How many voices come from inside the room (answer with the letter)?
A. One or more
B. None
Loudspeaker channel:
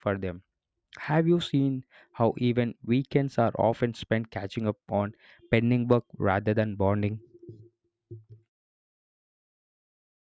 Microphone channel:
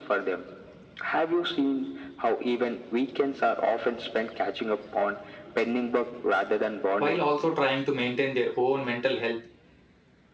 A